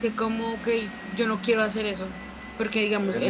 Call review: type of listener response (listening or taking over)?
listening